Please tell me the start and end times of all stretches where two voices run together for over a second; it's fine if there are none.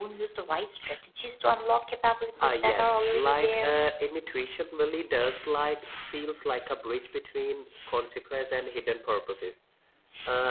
2.4-3.7

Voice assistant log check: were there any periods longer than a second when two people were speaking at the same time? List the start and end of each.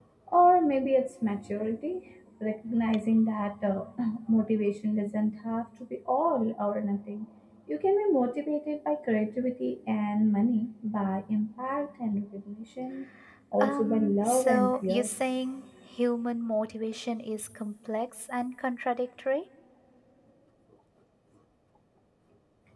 13.6-15.1

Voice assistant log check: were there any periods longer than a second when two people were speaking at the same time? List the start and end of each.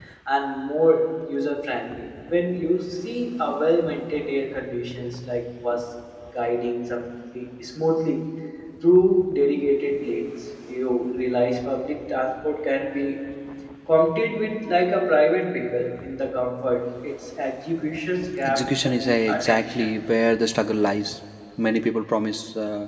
18.4-19.9

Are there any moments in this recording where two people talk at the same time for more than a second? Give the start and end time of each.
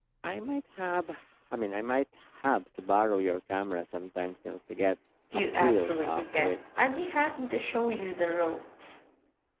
5.3-6.6

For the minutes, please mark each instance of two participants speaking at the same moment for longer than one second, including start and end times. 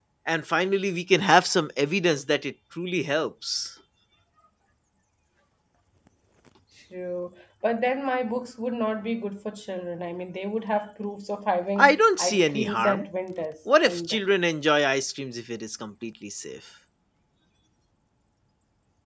11.8-13.1

